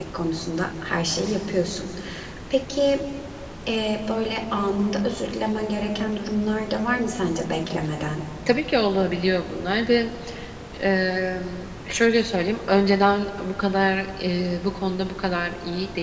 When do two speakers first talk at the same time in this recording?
none

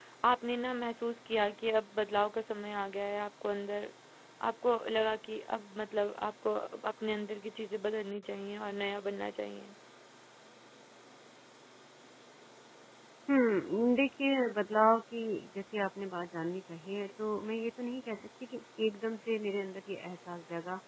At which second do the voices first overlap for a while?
none

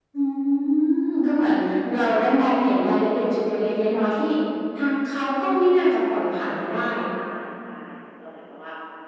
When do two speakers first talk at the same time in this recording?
none

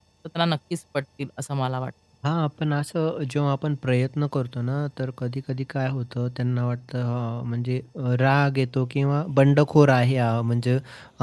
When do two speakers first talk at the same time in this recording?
none

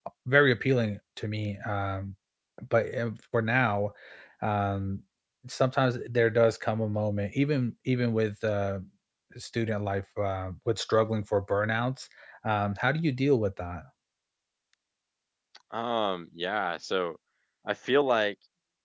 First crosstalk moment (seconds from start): none

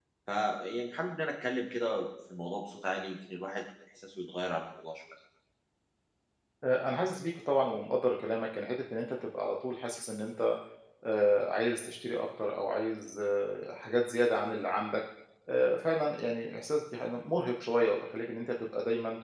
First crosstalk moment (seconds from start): none

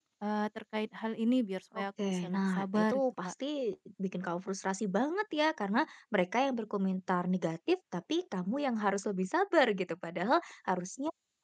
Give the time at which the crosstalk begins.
1.7 s

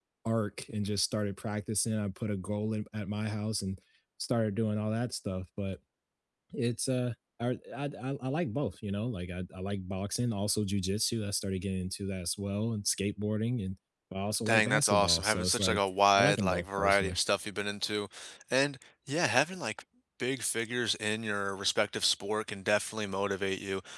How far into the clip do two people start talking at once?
14.5 s

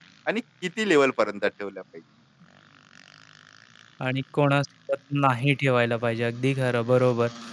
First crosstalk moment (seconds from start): none

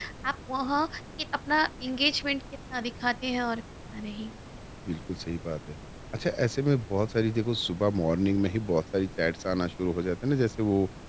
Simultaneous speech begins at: none

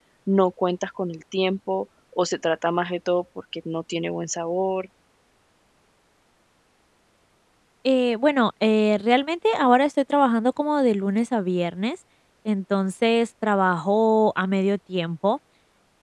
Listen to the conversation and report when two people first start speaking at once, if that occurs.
none

